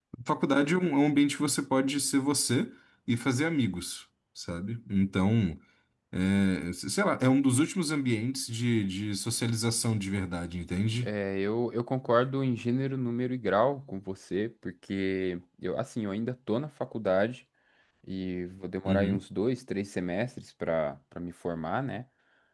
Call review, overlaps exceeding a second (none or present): none